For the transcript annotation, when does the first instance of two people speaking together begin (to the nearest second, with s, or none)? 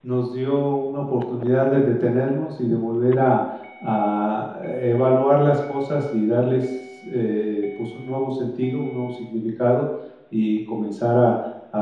none